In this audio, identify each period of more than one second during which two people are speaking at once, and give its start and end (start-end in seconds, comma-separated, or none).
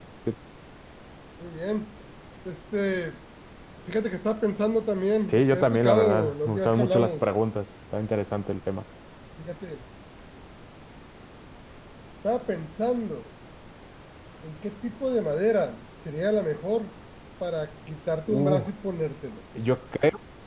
5.3-7.2